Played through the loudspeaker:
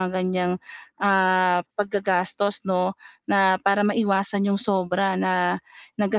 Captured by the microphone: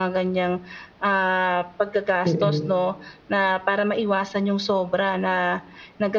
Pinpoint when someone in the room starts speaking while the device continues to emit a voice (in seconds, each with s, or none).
2.2 s